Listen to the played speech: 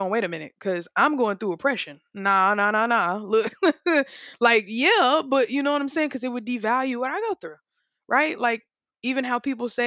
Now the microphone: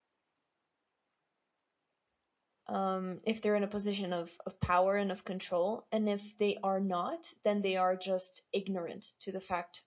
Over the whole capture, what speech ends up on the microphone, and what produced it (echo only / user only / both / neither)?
user only